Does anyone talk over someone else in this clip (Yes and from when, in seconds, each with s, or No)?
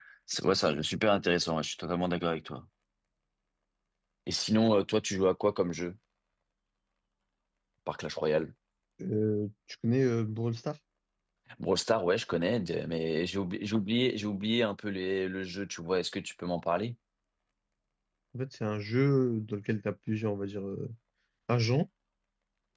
No